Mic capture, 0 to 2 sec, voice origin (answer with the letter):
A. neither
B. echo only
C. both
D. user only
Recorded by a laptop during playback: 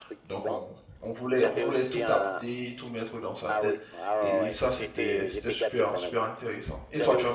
C